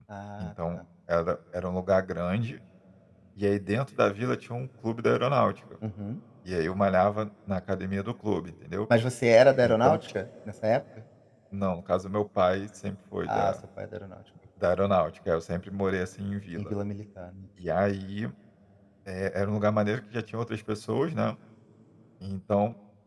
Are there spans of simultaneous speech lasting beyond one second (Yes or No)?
No